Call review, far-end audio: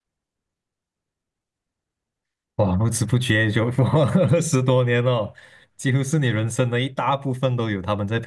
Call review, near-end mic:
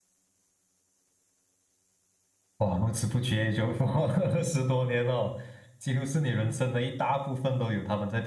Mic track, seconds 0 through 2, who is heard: neither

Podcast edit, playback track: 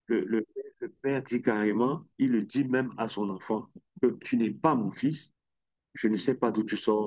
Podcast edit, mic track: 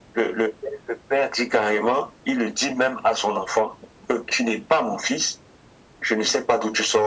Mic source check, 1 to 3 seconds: echo only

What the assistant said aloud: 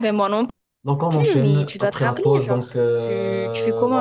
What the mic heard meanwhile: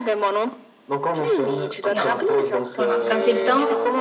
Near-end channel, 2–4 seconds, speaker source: both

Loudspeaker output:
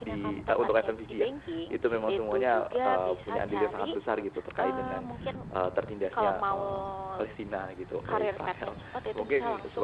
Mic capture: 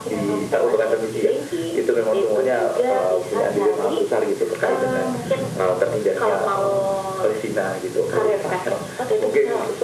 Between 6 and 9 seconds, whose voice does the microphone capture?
echo only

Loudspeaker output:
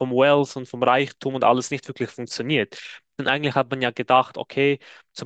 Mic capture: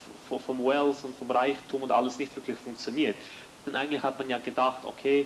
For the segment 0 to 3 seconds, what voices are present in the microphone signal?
echo only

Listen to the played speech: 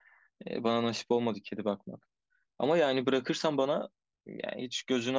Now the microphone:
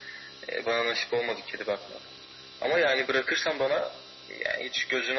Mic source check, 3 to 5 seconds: echo only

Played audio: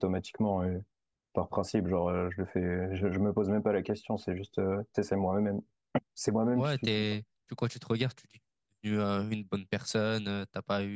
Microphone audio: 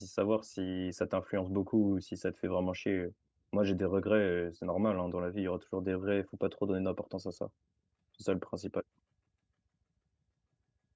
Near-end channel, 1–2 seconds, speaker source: user only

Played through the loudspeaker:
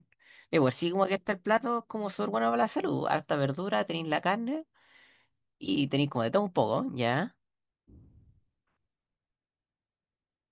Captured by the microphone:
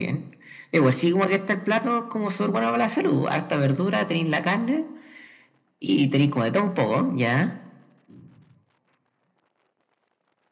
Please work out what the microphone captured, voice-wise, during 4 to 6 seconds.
echo only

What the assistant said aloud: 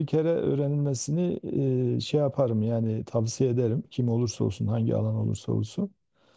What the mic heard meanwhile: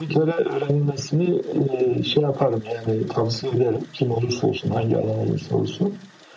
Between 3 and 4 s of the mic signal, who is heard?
echo only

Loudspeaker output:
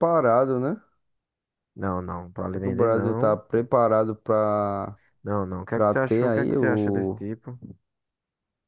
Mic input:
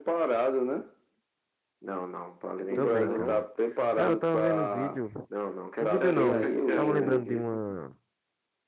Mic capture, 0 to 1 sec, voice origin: echo only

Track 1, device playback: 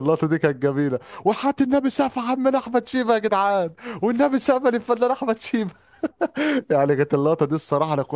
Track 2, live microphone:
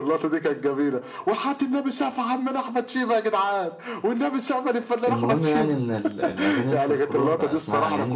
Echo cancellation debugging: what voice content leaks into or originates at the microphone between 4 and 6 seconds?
both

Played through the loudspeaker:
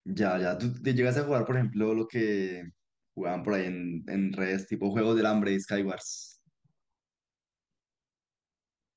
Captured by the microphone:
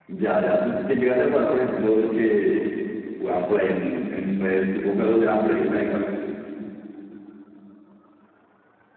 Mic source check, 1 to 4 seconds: echo only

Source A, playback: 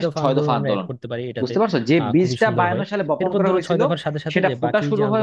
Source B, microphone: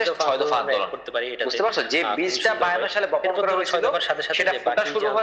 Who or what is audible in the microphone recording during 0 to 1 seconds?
echo only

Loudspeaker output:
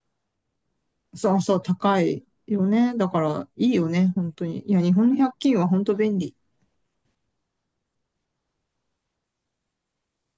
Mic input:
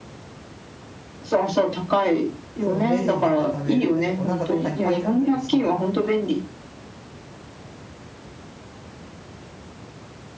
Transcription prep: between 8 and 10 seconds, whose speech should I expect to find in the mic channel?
neither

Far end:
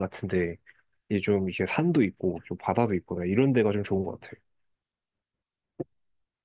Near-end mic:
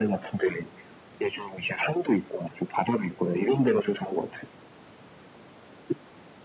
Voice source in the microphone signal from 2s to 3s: echo only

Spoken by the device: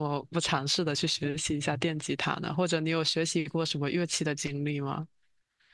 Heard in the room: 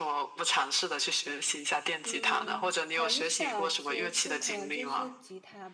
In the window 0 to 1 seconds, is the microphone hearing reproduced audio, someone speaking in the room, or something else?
echo only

